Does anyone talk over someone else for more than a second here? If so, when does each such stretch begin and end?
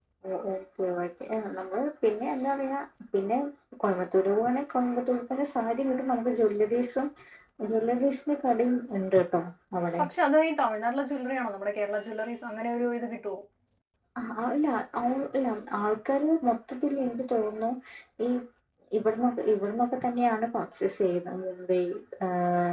none

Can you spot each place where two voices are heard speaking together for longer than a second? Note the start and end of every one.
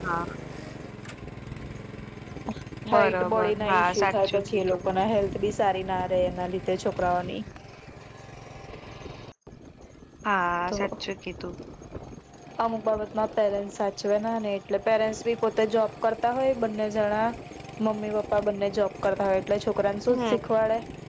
2.9-4.8

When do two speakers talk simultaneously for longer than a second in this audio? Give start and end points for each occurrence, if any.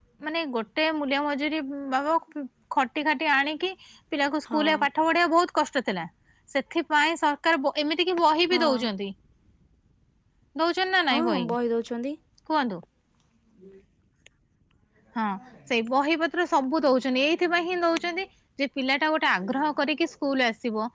none

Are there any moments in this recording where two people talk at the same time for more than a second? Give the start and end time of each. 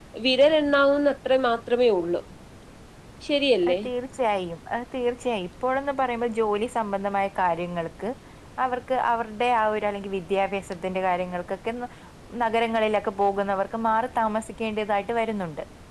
none

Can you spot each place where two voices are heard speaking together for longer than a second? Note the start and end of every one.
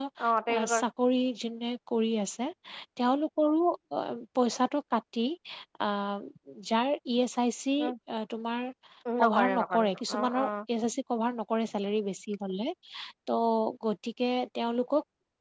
9.2-10.4

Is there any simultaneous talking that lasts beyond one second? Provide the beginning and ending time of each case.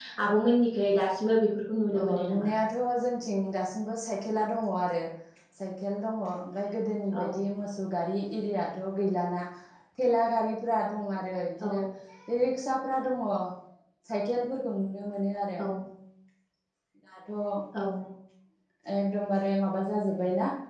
none

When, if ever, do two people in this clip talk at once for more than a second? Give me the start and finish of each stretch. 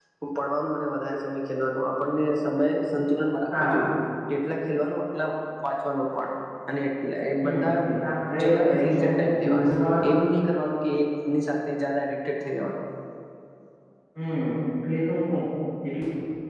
8.4-9.7

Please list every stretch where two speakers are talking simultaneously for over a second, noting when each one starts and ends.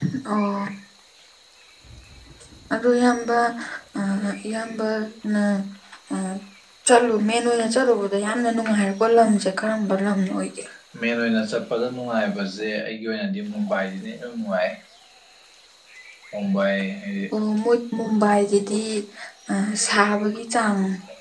none

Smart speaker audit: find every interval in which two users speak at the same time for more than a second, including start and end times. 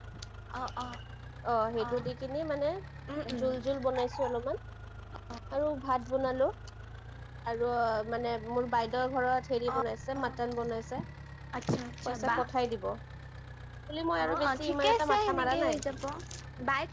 14.2-15.8

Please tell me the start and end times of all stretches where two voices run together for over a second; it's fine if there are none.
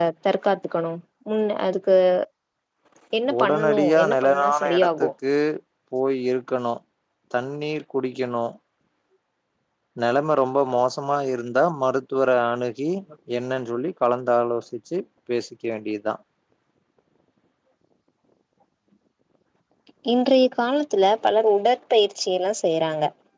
3.4-5.1

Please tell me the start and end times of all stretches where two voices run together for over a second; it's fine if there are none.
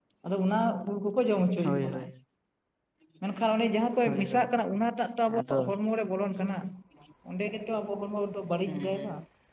none

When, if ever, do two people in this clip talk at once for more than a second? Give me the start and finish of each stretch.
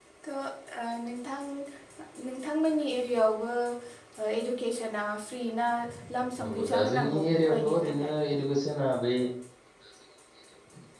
6.4-8.1

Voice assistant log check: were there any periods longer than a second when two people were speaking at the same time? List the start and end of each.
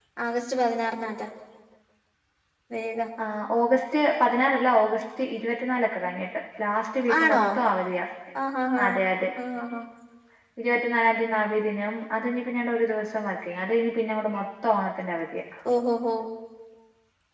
none

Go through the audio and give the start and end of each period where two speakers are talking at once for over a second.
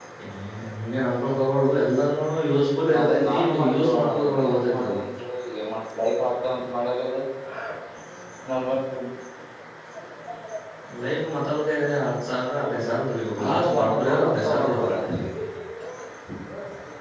3.0-5.0, 13.4-14.9

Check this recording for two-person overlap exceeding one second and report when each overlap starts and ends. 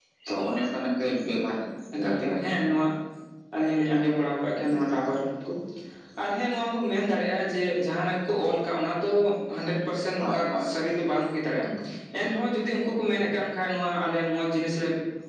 none

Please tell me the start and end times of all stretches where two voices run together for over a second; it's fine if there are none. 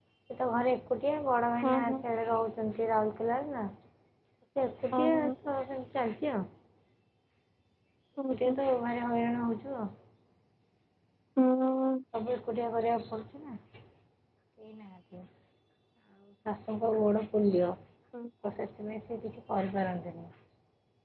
none

